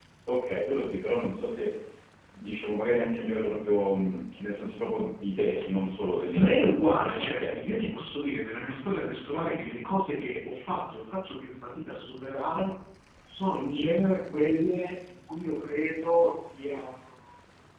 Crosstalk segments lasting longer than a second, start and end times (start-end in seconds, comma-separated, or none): 6.3-7.8